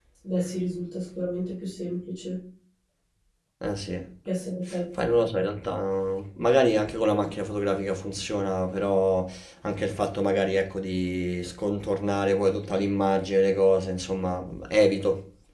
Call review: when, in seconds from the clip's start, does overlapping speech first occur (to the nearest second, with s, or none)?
none